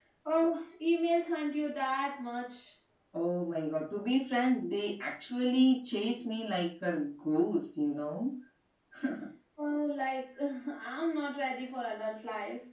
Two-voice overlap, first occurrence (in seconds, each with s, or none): none